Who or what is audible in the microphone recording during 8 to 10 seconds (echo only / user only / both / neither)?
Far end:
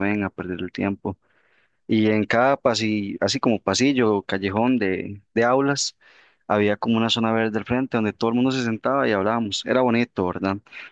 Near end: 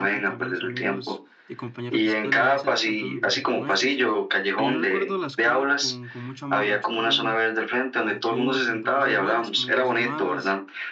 both